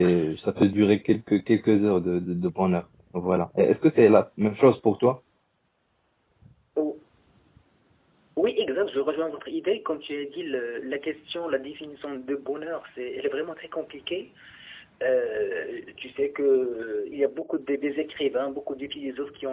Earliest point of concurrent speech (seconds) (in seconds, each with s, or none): none